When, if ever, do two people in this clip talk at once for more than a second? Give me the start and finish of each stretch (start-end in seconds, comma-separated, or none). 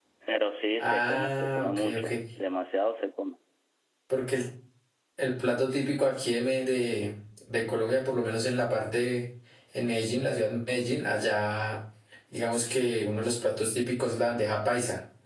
0.8-2.1